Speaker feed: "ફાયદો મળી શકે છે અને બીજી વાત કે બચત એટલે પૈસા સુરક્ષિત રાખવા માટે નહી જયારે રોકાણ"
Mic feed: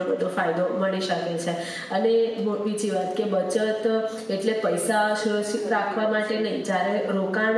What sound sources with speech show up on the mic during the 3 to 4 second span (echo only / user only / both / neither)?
echo only